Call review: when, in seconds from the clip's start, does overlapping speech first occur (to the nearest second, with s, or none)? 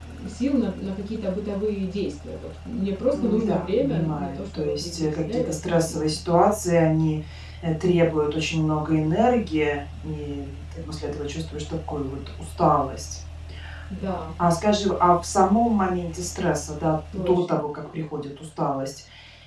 3 s